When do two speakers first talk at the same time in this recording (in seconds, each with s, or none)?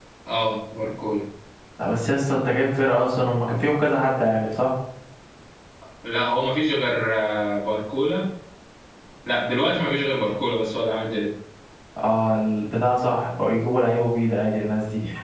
none